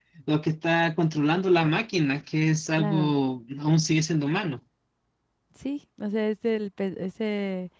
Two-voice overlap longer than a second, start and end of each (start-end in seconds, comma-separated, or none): none